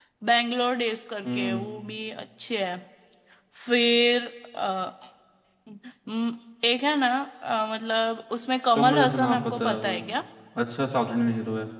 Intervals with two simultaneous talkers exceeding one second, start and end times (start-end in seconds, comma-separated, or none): 8.7-10.0